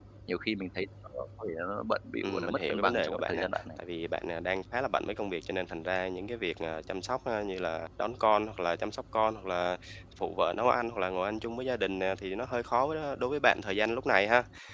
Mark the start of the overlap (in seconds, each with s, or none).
2.2 s